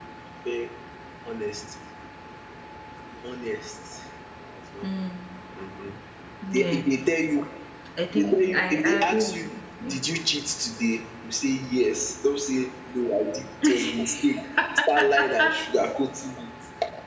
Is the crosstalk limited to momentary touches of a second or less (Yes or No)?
No